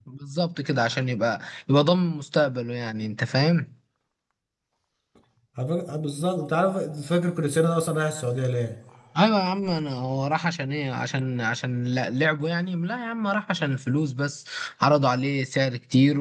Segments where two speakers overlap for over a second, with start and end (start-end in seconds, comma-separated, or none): none